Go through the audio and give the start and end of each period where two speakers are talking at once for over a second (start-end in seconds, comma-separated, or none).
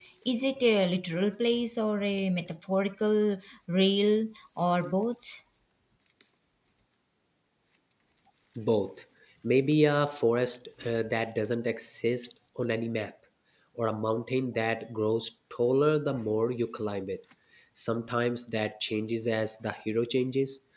none